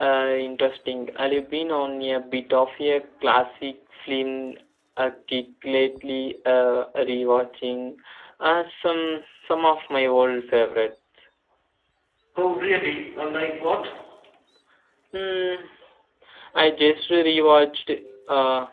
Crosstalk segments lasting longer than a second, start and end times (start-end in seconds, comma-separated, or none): none